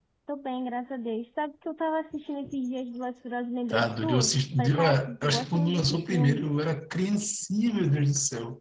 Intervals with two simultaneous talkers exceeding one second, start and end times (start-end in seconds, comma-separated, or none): 3.7-6.4